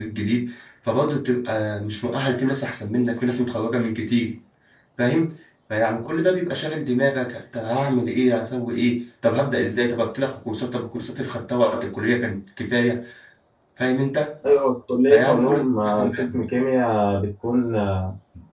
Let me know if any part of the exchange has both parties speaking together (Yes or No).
Yes